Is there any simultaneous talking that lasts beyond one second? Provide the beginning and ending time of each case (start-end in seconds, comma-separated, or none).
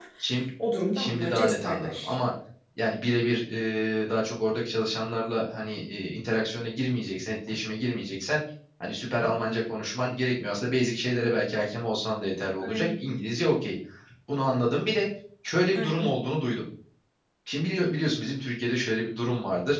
0.9-2.2